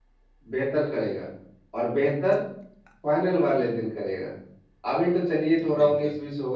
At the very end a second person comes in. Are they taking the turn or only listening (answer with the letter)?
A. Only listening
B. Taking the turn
A